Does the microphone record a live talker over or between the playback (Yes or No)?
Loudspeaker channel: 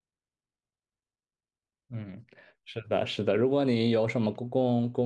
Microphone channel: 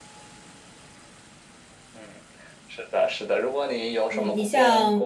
Yes